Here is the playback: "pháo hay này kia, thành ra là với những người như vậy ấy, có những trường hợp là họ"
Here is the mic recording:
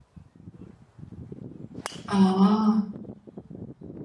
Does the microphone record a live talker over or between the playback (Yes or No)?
Yes